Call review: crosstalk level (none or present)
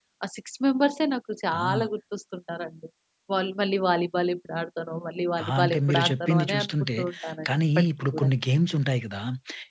present